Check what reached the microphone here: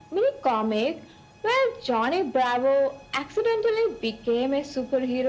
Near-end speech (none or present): none